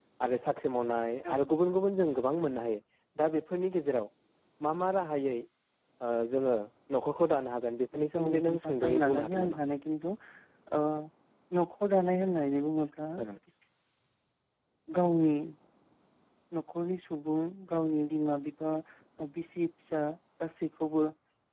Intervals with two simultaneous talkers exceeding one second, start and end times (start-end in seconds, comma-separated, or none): 7.9-9.6